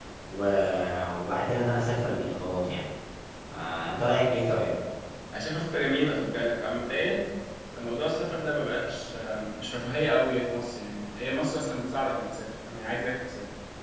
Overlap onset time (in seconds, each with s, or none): none